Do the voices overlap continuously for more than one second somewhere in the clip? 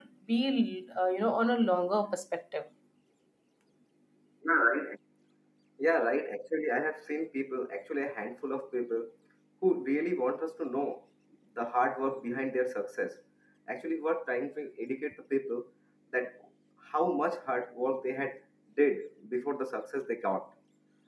No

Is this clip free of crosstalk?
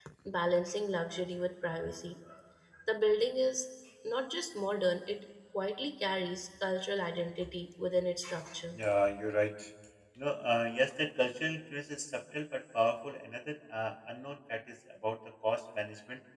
Yes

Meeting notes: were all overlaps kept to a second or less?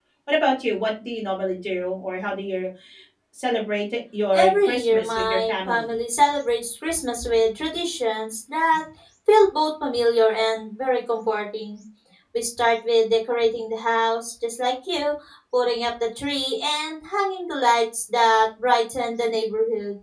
No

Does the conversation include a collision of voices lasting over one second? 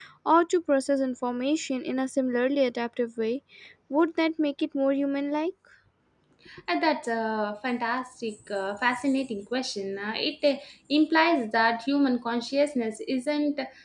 No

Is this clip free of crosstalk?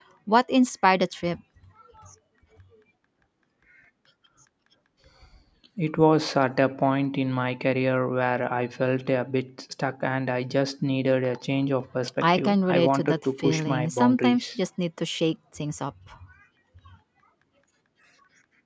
No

